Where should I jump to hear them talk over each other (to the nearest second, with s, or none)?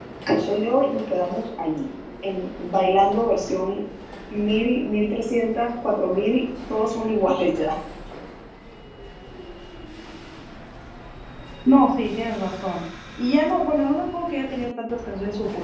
none